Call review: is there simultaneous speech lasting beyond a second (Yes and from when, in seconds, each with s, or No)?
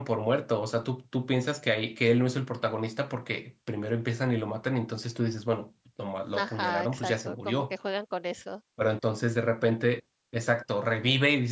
Yes, from 6.3 s